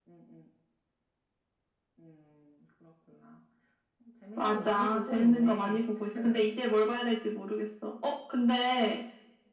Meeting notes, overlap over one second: present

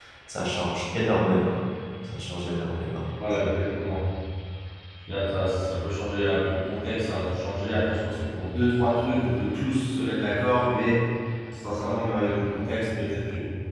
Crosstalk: none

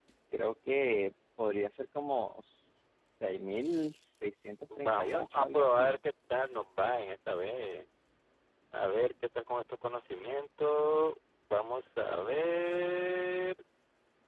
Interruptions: present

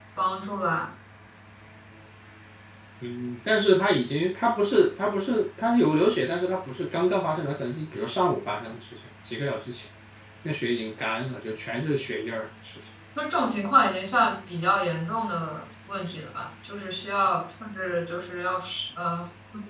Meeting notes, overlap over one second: none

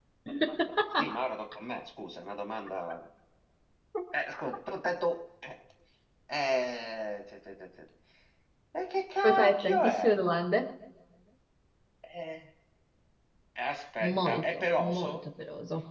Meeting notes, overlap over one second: present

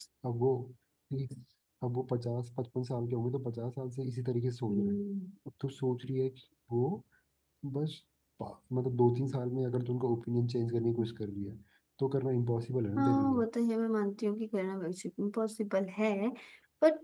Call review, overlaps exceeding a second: none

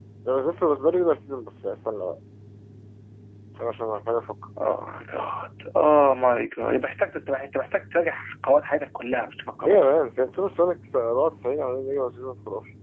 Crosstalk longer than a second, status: none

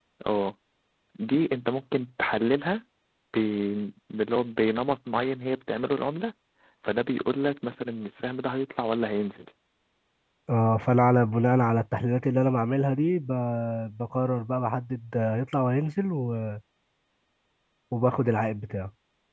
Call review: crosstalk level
none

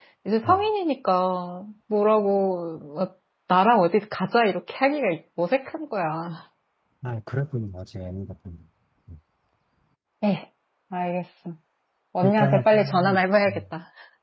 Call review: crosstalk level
present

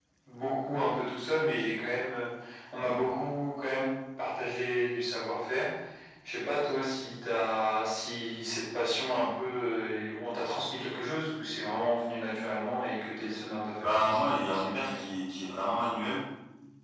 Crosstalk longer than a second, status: present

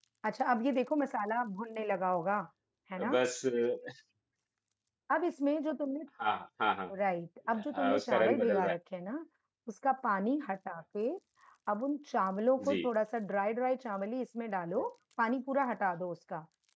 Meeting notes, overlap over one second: present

